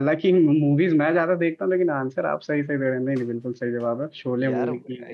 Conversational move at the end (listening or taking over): taking over